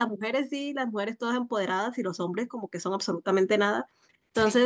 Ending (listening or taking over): listening